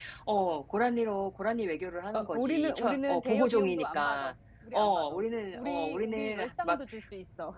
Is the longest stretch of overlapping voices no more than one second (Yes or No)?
No